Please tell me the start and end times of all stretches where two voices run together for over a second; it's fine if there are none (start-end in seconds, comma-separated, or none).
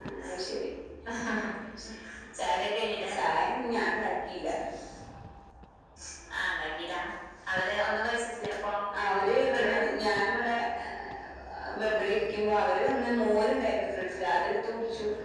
none